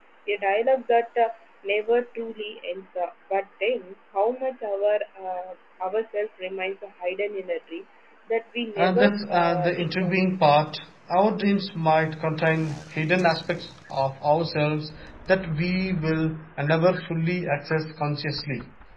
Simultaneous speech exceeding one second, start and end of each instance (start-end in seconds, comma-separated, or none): 8.8-10.1